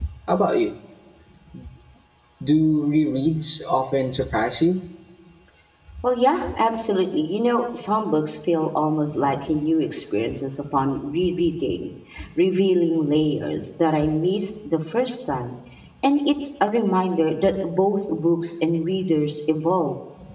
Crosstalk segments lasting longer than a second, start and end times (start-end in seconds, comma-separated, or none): none